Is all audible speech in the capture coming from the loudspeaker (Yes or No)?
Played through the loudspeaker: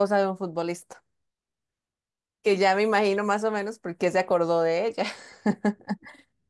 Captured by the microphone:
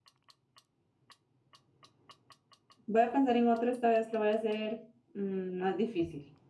No